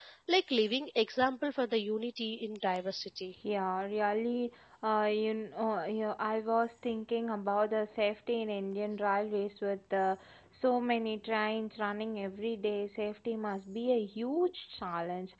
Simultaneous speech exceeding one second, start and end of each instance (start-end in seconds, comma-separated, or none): none